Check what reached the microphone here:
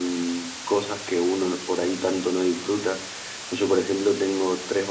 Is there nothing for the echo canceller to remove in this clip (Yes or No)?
No